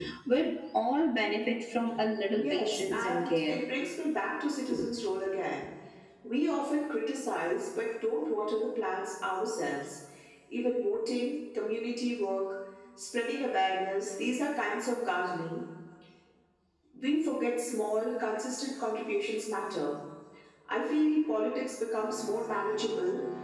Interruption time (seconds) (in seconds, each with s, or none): 2.4 s